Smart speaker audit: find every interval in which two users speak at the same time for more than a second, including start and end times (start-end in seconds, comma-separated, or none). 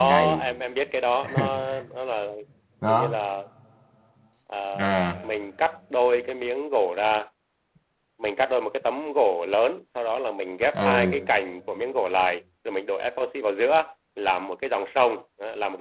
none